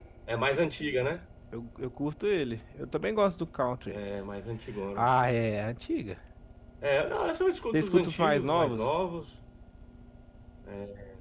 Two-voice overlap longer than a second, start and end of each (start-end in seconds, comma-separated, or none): 7.7-9.0